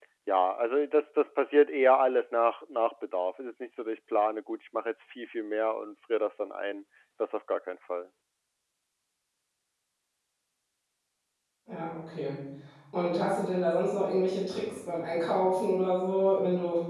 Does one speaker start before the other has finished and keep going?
No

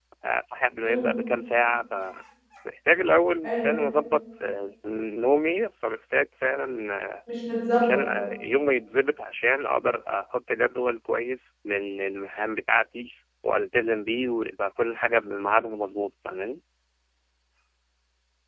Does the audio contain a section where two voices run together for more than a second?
No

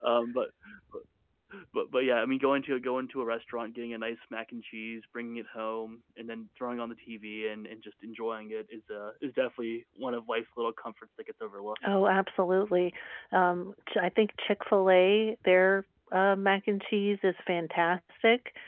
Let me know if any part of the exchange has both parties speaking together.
No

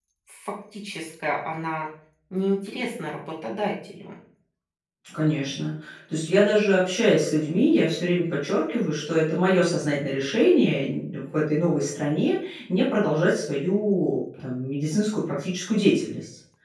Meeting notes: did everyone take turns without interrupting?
Yes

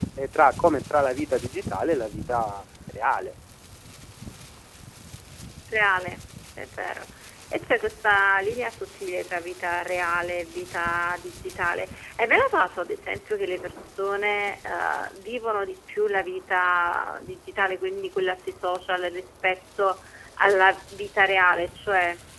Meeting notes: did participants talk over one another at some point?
No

